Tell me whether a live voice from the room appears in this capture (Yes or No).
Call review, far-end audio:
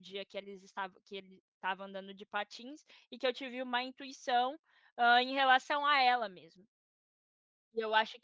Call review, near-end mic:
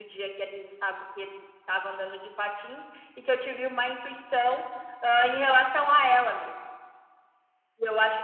No